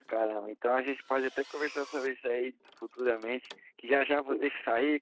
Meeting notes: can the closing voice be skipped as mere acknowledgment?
Yes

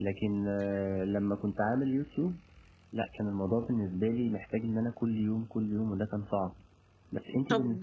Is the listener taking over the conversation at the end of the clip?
Yes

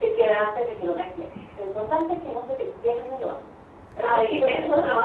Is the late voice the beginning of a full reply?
Yes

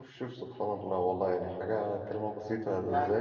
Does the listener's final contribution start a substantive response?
No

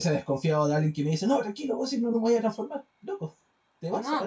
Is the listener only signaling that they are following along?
No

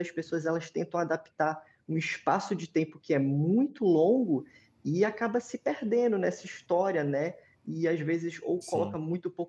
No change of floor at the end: Yes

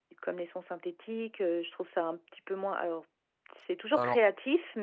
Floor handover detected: No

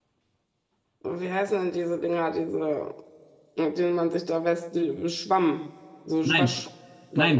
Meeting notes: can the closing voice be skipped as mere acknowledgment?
No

